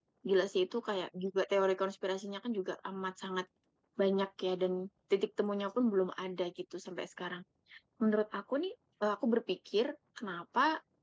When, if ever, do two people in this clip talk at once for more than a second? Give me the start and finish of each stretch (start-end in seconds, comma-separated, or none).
none